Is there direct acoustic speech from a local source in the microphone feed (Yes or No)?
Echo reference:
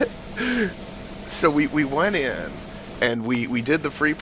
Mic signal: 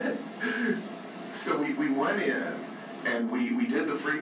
No